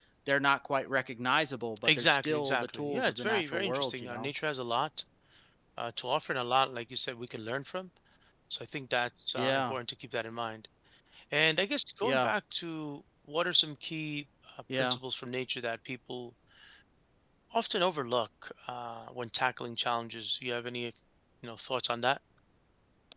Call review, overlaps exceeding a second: present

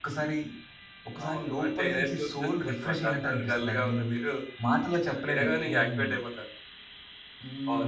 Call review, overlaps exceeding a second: present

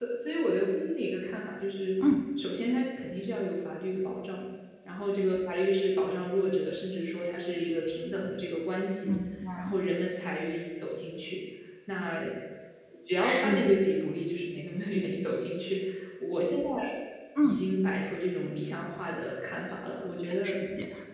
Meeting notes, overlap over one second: none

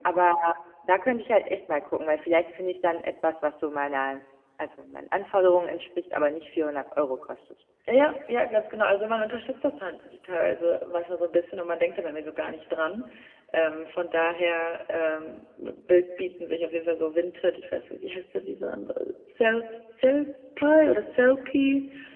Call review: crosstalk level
none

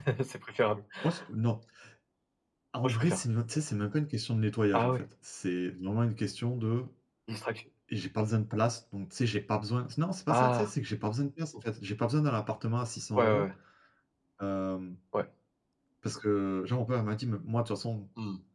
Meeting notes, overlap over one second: none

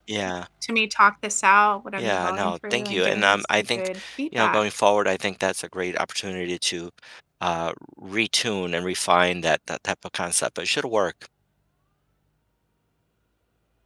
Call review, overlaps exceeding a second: present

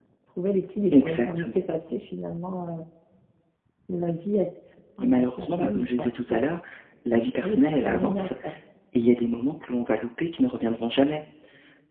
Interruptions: present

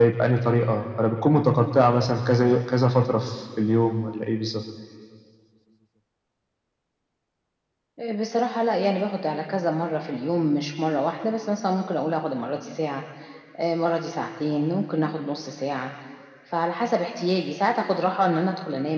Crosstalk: none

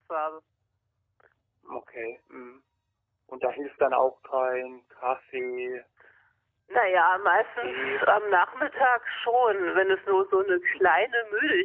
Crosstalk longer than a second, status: none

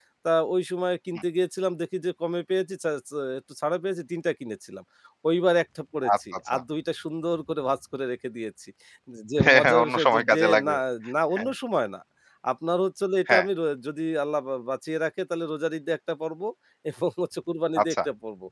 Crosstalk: present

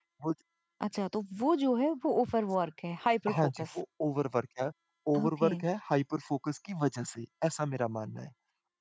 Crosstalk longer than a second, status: none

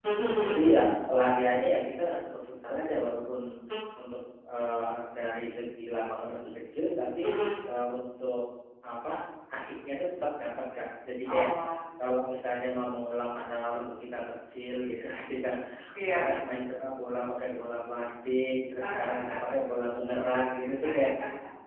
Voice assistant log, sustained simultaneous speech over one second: none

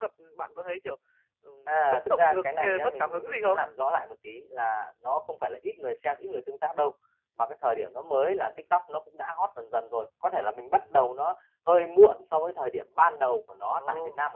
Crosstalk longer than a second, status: present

